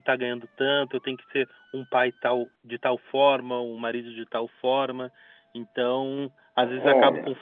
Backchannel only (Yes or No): Yes